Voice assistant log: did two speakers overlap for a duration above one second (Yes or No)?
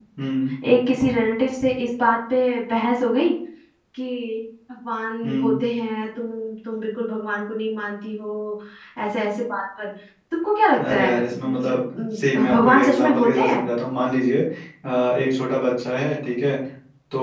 Yes